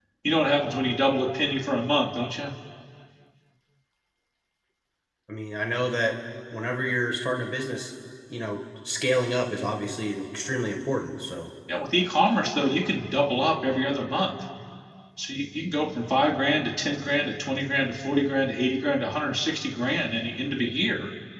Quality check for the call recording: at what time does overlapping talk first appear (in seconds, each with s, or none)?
none